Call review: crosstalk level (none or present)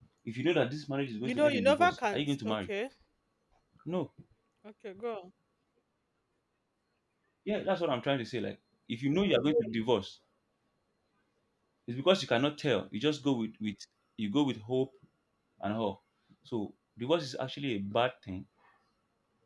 present